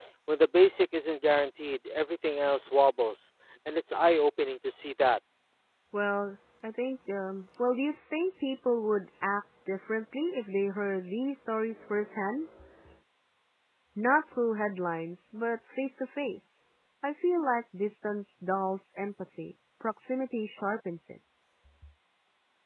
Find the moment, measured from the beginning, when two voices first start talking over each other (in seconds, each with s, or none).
none